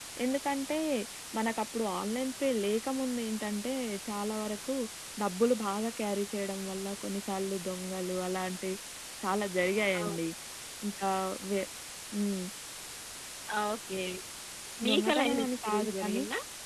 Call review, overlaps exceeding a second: present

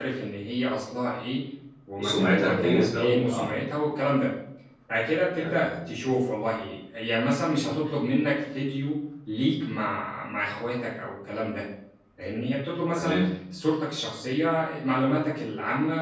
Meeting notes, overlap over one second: present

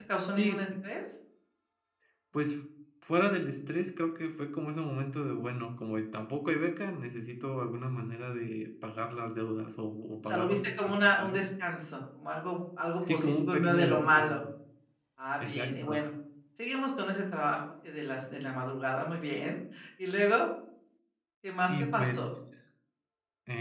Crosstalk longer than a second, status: present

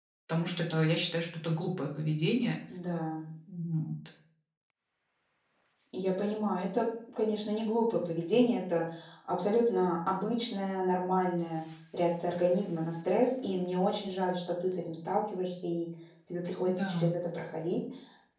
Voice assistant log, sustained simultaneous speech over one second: none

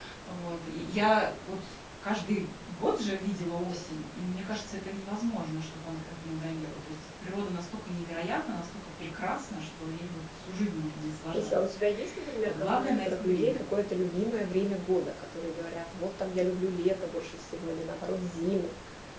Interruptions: present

